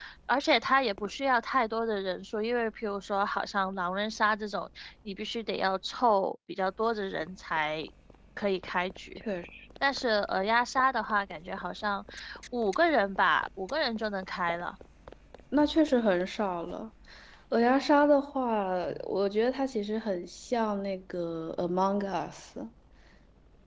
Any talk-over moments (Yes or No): No